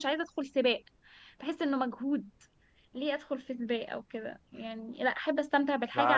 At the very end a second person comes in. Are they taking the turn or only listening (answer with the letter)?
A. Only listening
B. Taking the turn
B